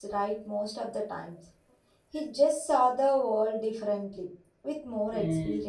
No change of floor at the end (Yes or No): No